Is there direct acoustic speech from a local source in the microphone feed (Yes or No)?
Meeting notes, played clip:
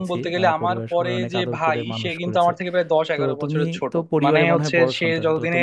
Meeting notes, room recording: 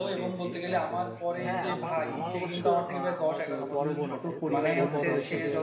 Yes